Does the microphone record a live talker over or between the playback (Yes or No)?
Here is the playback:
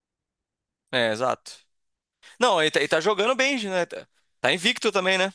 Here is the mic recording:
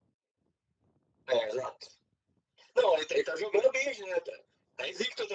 No